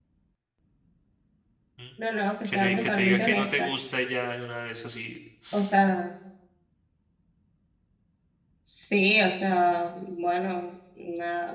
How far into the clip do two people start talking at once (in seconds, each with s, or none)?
2.4 s